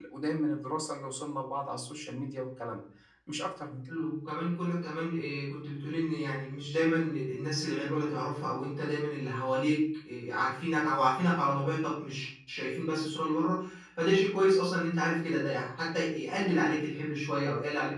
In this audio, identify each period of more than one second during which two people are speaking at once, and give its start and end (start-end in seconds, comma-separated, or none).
none